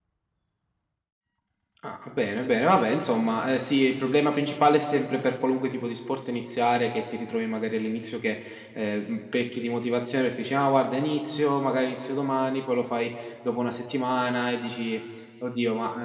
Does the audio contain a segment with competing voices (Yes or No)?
No